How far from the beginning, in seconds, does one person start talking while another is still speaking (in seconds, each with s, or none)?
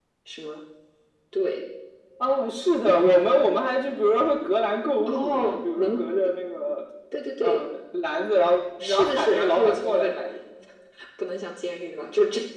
5.1 s